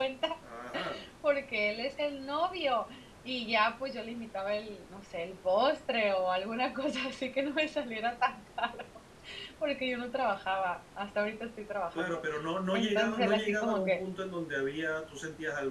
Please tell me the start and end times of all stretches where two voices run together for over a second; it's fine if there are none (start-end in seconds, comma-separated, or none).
12.7-14.0